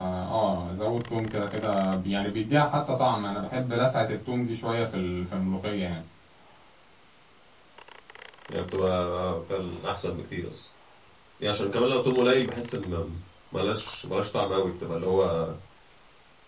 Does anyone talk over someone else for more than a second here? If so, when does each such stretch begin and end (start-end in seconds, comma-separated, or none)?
none